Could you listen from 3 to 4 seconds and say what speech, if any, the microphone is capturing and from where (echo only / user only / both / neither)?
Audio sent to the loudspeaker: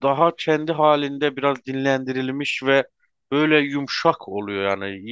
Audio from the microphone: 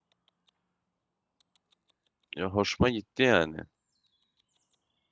user only